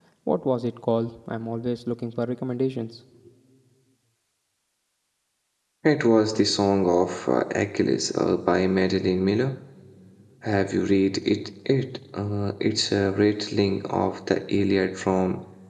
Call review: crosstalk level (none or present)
none